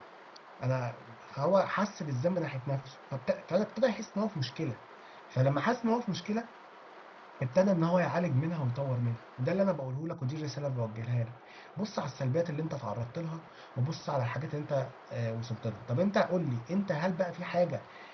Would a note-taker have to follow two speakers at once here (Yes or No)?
No